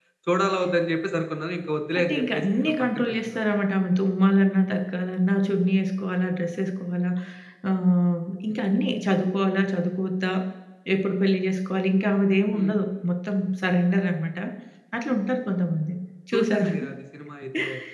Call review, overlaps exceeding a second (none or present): present